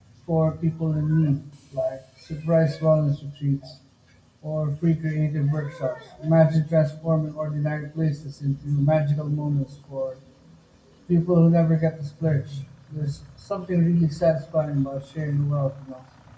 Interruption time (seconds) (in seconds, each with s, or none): none